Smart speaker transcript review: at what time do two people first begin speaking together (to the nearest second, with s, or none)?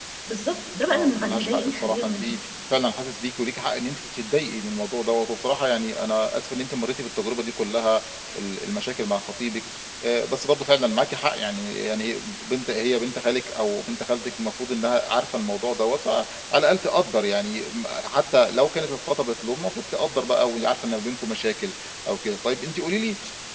1 s